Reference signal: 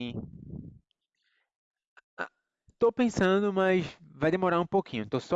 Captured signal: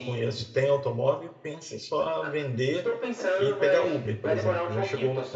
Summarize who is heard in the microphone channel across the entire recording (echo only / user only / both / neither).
both